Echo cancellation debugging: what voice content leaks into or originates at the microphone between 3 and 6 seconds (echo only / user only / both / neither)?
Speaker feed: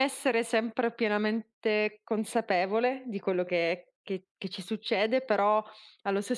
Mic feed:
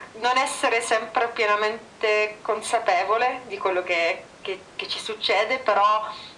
echo only